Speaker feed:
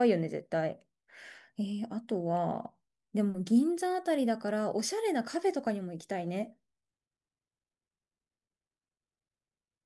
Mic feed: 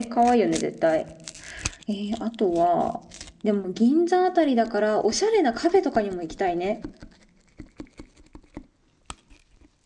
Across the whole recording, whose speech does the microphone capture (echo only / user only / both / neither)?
echo only